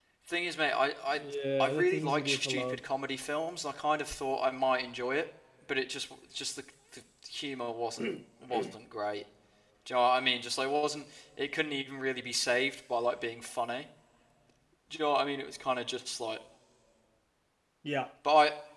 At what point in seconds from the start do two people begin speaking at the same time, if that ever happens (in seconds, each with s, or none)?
1.6 s